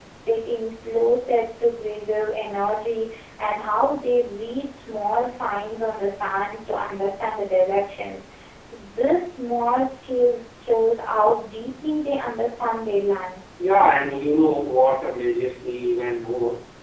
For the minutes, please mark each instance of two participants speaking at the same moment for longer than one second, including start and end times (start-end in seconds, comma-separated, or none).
none